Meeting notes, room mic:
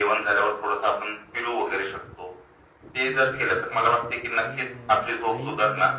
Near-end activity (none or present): present